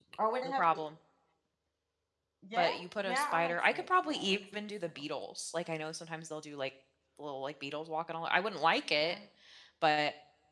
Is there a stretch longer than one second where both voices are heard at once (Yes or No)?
Yes